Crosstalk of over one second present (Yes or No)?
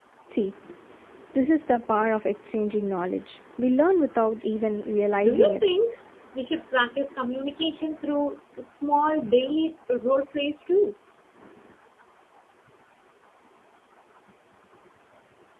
No